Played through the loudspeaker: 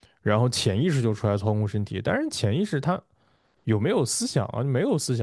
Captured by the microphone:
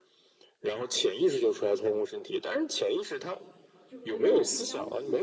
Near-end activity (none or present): present